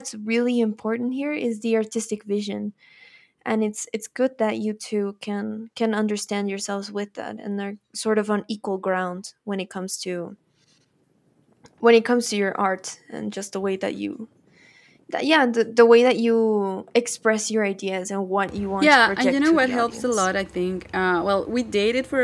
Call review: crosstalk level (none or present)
present